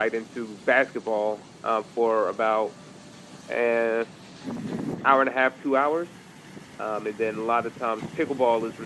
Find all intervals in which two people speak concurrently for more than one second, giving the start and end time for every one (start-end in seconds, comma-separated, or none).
none